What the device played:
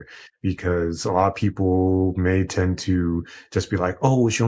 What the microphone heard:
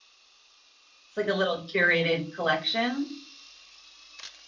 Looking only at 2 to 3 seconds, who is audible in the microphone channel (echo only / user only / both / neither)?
user only